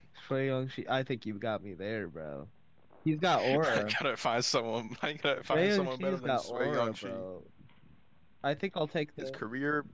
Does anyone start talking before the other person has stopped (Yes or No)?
Yes